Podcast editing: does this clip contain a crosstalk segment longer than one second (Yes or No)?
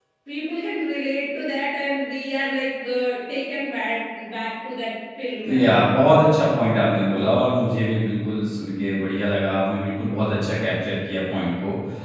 No